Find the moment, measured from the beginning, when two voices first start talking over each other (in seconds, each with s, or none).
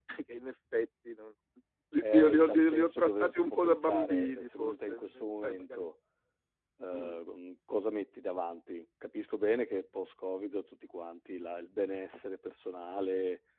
2.0 s